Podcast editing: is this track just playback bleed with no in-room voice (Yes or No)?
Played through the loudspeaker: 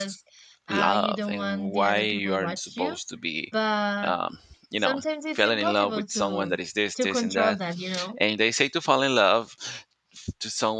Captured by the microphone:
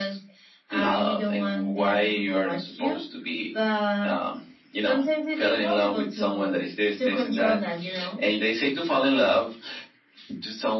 Yes